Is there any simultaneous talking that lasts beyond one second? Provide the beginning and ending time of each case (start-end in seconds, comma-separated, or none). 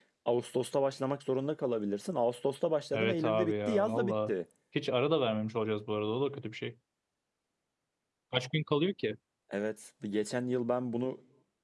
2.9-4.3